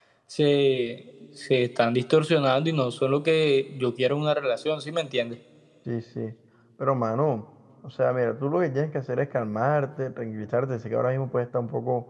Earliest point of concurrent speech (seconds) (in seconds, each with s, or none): none